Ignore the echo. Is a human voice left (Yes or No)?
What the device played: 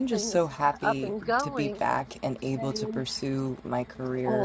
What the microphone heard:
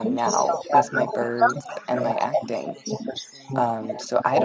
Yes